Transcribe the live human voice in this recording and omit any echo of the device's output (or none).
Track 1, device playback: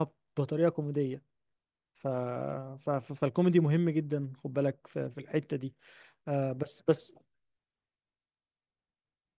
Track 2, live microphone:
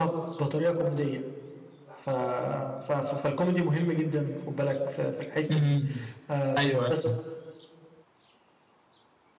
امم ايوه أيوة.